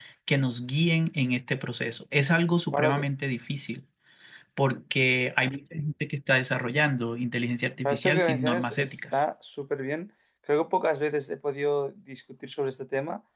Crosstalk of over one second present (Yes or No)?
Yes